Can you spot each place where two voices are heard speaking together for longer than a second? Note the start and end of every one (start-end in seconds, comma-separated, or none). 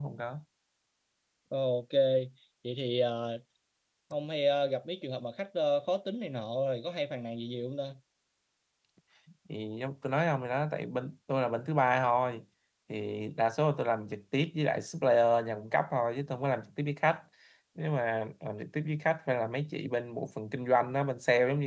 none